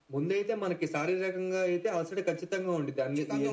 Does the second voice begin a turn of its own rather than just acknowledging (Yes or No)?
No